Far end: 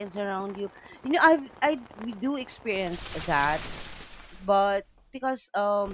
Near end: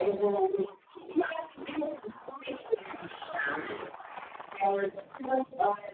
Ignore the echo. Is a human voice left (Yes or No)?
No